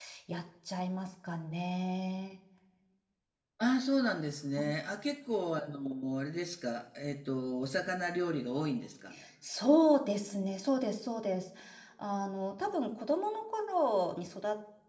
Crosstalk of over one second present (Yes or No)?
No